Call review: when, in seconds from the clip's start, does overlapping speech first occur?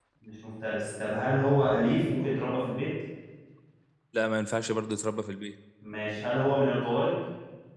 none

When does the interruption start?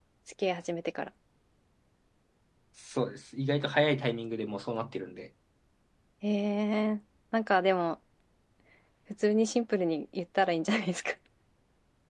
none

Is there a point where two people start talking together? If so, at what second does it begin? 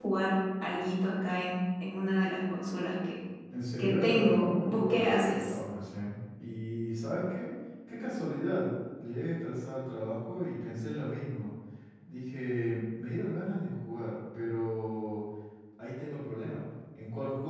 3.8 s

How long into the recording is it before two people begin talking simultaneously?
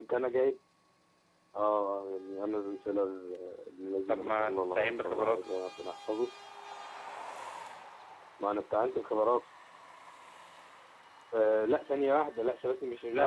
4.1 s

